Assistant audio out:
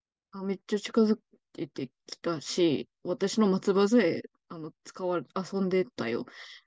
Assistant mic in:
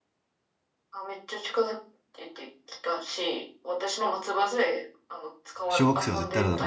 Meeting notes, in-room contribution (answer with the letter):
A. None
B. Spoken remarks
B